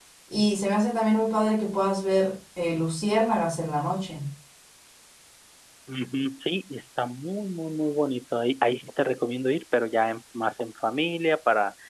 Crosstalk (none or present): none